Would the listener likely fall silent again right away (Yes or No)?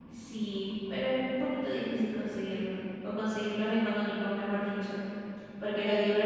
Yes